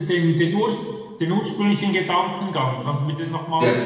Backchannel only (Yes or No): No